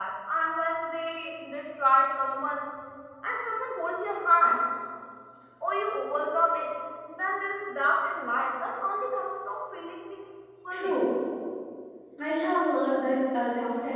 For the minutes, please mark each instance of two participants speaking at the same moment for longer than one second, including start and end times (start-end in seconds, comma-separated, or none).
none